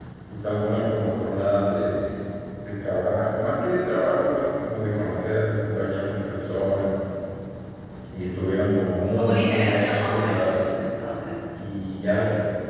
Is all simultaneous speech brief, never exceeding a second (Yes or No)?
No